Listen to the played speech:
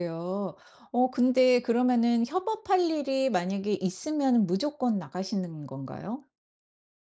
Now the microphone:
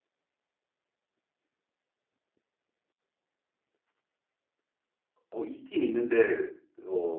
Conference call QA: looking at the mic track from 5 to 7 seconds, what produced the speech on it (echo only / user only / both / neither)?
user only